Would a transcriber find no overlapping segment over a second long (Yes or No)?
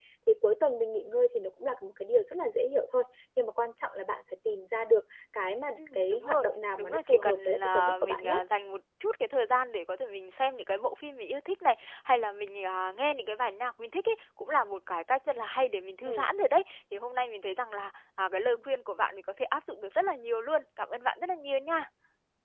No